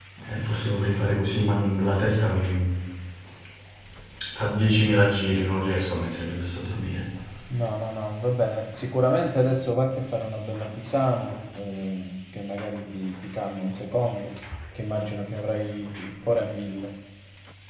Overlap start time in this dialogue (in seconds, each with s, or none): none